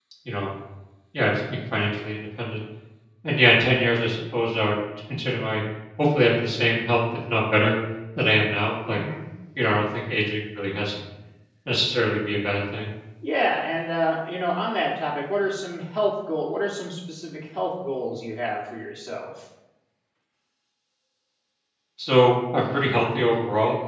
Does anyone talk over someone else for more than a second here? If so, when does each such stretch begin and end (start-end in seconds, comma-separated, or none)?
none